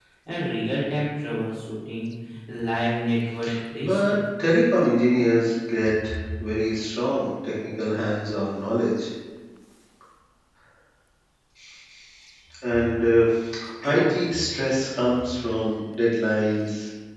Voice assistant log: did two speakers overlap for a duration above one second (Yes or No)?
No